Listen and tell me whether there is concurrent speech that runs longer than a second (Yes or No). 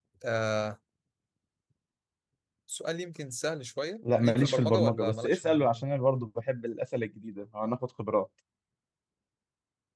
Yes